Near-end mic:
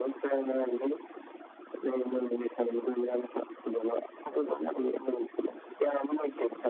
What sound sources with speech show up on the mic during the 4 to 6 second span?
echo only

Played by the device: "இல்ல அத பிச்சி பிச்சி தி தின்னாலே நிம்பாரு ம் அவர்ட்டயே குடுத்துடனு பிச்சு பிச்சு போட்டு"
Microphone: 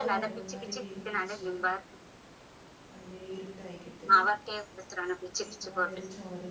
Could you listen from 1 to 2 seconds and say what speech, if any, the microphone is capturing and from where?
both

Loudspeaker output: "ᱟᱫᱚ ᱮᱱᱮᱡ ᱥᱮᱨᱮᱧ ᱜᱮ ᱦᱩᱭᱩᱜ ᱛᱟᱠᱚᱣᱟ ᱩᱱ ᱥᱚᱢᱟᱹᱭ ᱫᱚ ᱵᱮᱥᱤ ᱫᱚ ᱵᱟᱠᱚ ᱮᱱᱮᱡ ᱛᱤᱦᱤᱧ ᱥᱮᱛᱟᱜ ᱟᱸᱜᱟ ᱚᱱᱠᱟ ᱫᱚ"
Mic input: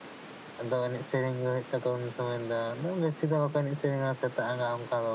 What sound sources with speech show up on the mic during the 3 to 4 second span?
echo only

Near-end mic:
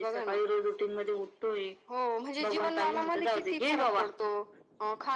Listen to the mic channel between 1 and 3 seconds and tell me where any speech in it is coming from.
echo only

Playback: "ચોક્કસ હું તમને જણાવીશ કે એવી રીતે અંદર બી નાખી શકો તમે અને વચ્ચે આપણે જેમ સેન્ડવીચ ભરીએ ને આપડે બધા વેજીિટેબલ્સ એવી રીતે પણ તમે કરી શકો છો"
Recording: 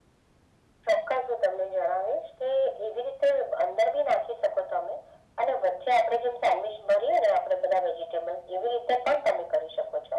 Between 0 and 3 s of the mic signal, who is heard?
echo only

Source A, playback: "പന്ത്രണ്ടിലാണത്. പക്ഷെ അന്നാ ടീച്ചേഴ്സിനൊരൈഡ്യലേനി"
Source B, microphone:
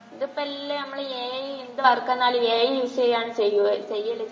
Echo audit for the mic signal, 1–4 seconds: user only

